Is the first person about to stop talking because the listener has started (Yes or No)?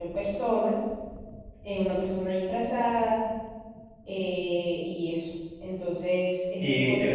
Yes